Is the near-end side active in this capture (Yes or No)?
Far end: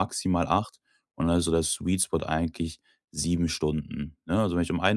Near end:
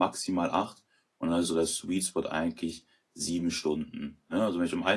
No